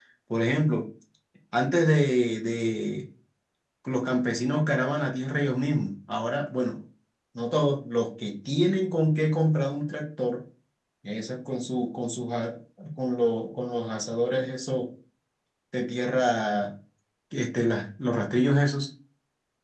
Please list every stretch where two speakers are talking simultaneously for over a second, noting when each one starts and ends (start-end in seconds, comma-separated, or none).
none